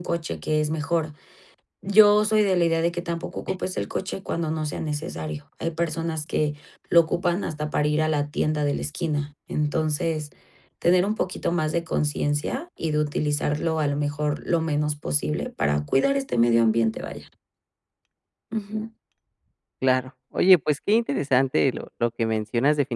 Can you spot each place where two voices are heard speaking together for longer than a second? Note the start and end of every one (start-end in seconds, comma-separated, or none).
none